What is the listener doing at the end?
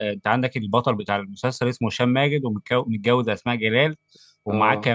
listening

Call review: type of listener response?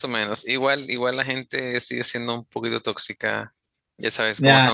taking over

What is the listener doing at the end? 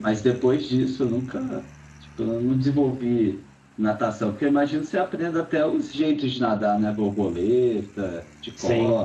taking over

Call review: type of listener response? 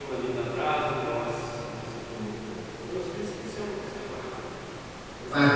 taking over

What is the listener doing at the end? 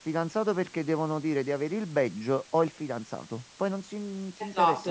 taking over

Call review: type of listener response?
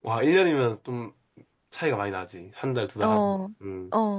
taking over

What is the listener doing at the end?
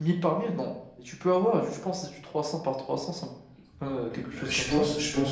taking over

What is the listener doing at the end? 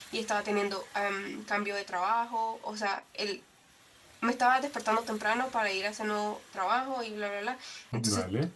listening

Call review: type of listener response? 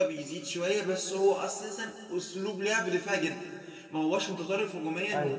listening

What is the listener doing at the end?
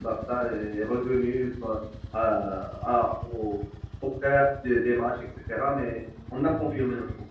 listening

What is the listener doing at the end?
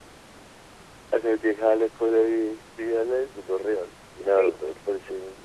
listening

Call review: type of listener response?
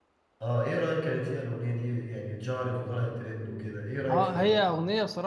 taking over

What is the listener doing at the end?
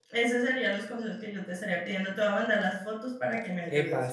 taking over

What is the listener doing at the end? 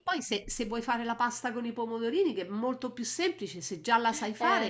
taking over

